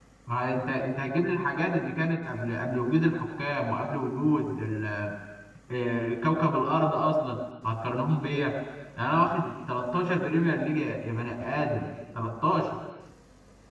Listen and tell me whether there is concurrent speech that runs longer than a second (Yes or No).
No